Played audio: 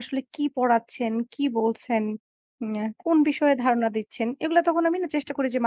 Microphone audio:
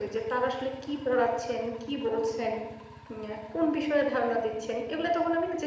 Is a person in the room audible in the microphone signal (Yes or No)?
No